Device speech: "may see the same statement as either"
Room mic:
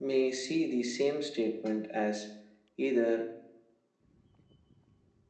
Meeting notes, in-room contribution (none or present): none